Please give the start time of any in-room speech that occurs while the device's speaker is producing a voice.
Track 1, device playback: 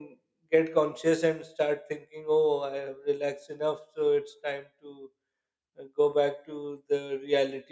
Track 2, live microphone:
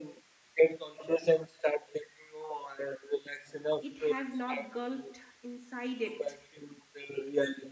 3.8 s

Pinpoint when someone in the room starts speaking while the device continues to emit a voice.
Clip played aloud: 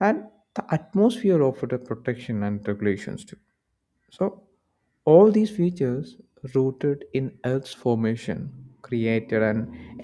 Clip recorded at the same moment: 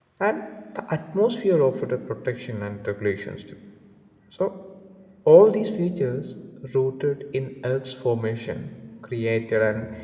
none

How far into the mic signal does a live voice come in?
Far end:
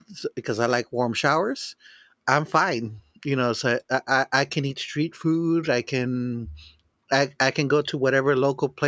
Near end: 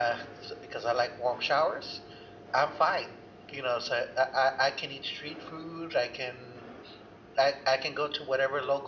none

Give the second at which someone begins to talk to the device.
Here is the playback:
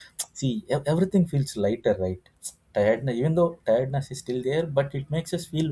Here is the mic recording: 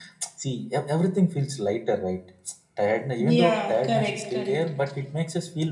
3.2 s

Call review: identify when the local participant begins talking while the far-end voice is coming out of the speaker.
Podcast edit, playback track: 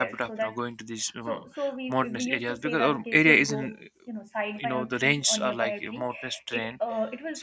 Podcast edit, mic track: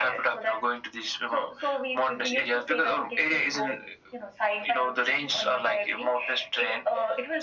none

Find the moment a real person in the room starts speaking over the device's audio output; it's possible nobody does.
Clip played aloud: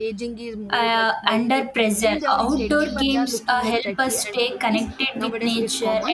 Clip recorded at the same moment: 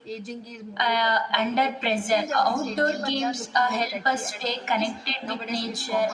none

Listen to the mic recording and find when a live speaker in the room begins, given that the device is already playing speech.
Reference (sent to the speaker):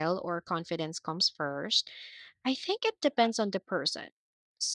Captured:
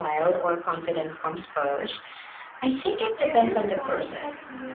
3.2 s

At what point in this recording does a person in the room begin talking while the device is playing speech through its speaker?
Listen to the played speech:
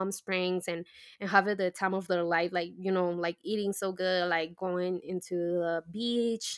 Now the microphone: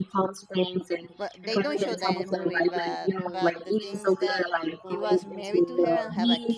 1.2 s

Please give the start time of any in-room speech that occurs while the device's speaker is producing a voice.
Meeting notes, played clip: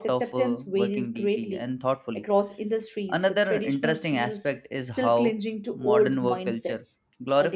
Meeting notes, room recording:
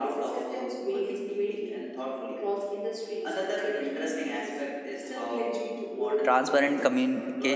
6.2 s

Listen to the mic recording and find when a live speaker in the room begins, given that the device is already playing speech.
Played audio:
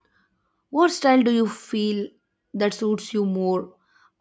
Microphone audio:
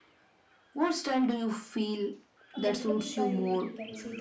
2.5 s

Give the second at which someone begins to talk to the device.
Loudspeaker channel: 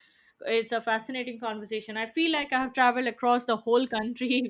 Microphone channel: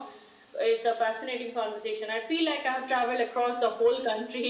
none

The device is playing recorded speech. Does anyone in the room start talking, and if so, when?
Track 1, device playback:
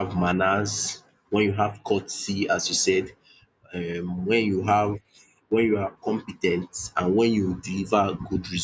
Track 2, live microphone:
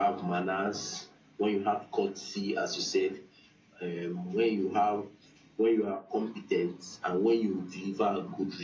none

